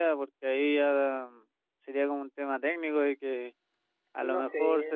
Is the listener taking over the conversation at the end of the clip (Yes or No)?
No